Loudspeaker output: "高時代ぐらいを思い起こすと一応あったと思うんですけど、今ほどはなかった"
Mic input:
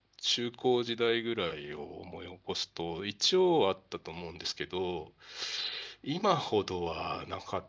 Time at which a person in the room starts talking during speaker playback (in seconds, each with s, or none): none